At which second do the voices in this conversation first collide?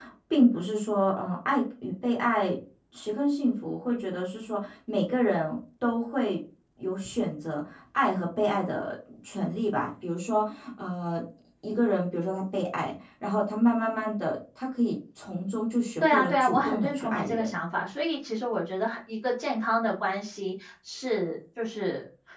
16 s

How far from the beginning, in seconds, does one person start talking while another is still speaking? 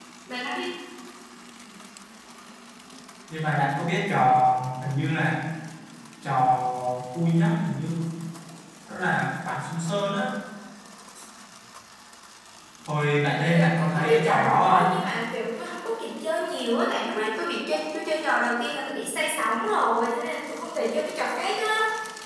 13 s

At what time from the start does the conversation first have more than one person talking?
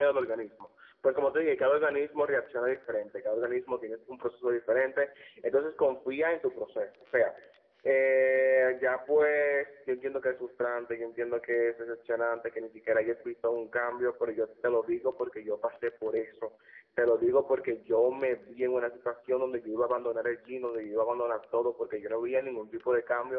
none

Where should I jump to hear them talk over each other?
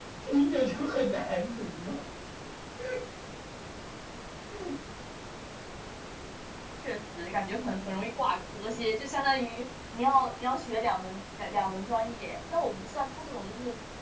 none

